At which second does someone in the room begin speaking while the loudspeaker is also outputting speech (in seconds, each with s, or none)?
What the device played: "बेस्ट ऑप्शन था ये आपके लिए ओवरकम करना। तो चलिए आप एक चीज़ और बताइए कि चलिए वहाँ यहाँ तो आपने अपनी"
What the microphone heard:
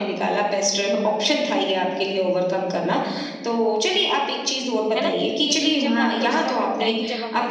4.9 s